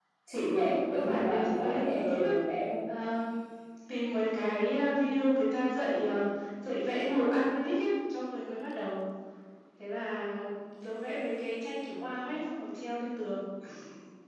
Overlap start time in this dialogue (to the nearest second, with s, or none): 1 s